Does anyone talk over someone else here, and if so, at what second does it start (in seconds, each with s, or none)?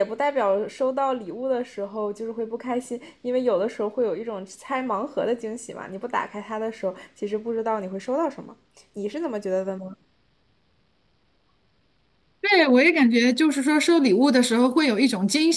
none